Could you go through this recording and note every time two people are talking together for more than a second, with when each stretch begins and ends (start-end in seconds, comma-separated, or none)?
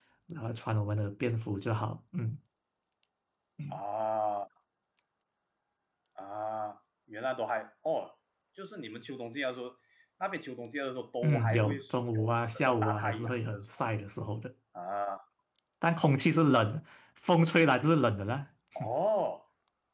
11.2-13.8